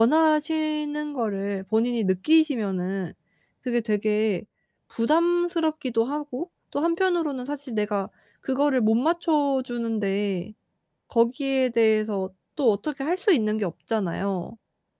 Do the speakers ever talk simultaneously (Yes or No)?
No